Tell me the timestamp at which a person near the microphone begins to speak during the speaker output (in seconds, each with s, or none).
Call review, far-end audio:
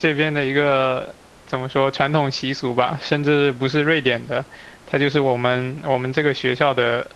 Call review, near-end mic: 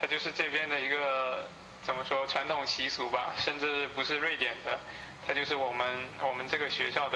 none